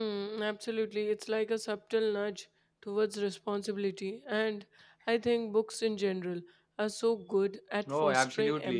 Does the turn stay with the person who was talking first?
No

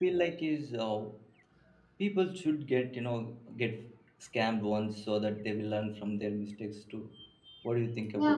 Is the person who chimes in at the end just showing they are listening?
No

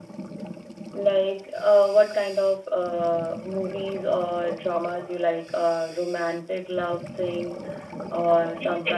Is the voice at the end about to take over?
Yes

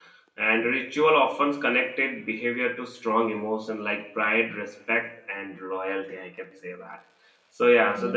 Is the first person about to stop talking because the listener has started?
No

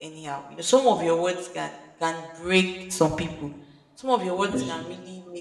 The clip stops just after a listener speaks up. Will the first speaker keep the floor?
Yes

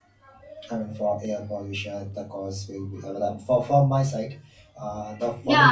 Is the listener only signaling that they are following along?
No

